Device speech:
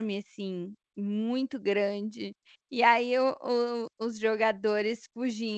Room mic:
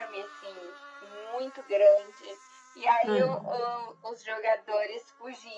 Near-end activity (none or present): present